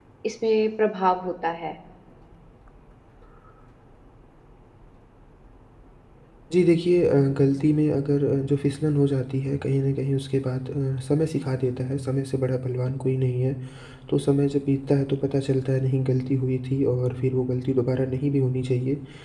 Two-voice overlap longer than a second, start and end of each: none

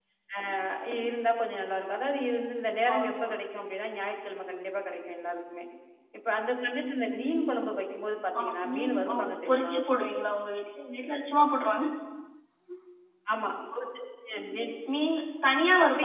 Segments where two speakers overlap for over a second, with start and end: 8.4-9.8

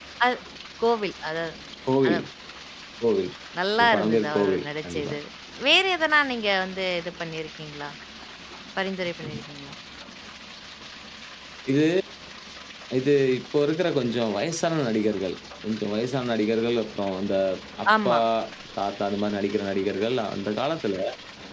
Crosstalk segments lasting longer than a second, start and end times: 3.8-5.1

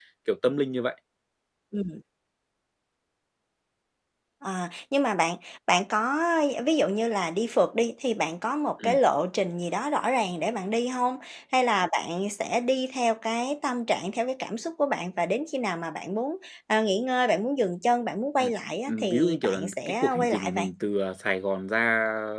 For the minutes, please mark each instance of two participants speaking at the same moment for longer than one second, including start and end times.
18.9-20.6

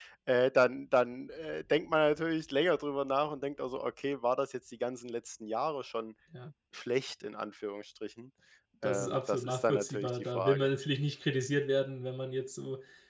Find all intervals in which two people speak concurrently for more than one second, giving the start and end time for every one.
8.8-10.7

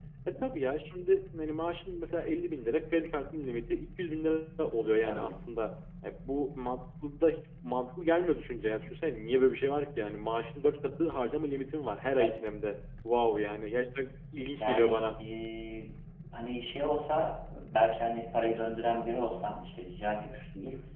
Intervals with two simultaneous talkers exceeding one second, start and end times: none

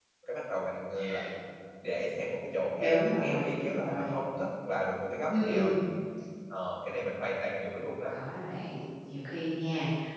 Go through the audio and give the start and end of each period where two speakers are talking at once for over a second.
2.8-4.2

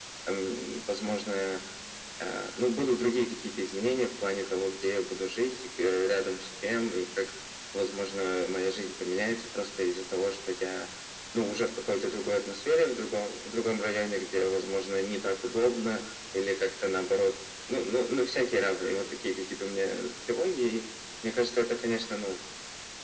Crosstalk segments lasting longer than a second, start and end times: none

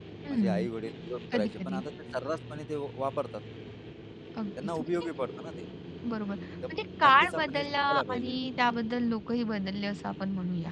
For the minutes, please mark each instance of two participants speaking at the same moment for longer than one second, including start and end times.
6.7-8.3

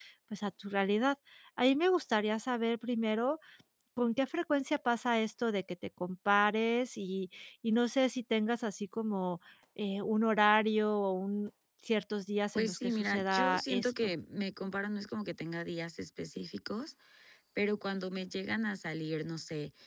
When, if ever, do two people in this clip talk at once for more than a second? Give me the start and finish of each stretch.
12.6-14.1

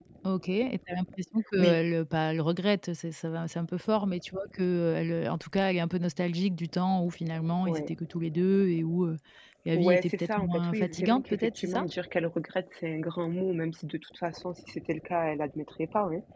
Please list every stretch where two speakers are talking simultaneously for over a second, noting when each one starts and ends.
9.7-11.8

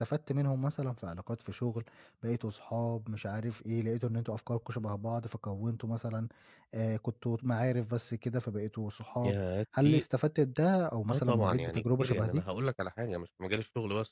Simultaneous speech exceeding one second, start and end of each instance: 11.1-12.4

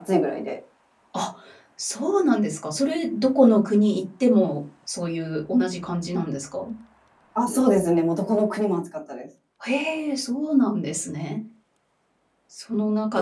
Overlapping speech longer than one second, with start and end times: none

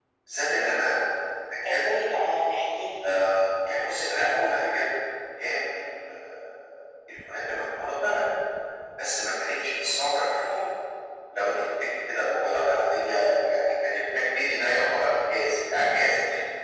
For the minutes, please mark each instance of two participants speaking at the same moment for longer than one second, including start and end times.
none

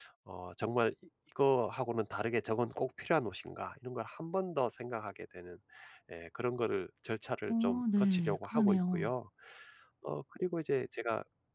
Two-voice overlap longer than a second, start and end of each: 7.5-9.1

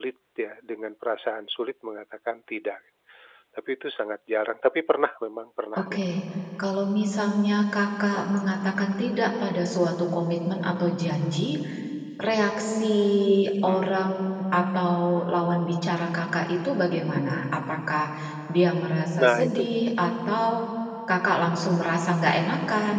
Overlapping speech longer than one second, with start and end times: none

